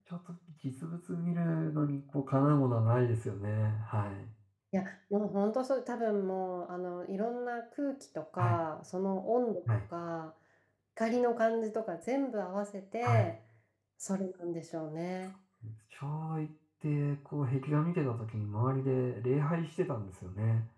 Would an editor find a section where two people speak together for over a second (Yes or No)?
No